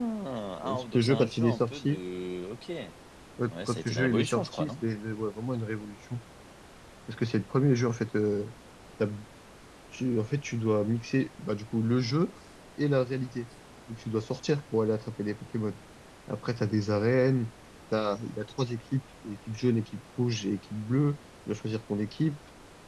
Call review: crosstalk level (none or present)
present